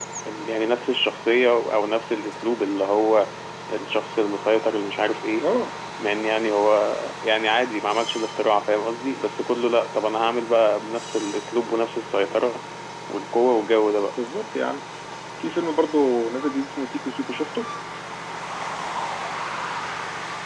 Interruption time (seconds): none

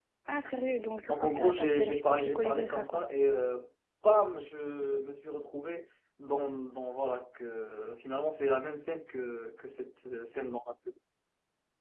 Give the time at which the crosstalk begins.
1.1 s

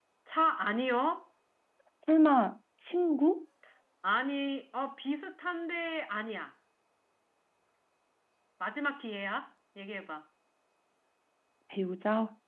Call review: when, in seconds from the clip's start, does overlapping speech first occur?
none

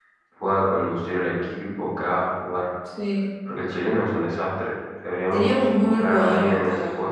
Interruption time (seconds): 5.3 s

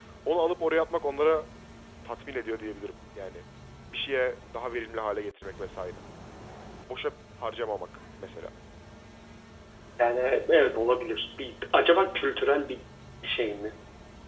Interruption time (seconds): none

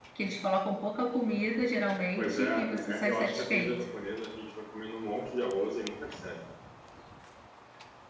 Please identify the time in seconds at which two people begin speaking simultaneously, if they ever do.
2.2 s

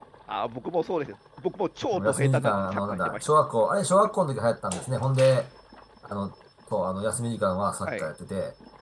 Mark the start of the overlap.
1.9 s

